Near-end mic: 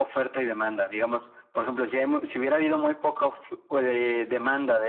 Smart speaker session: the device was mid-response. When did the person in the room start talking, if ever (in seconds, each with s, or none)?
none